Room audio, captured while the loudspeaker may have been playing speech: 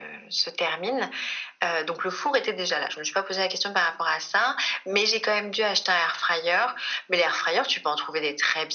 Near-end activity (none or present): none